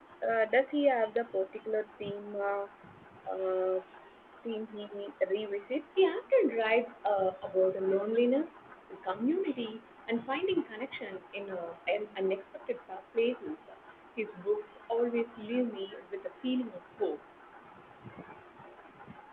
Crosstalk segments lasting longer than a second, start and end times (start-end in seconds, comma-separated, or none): none